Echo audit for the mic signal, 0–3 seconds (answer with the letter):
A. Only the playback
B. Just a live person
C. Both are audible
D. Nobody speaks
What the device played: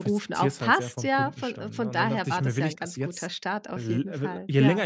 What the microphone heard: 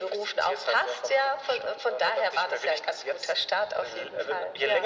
A